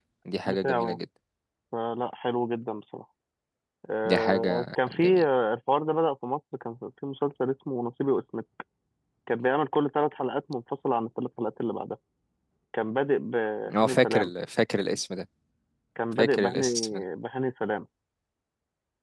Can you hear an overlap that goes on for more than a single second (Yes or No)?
Yes